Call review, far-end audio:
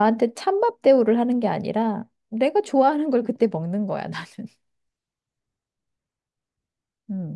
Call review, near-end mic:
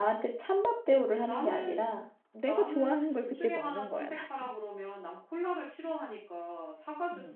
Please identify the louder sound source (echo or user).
echo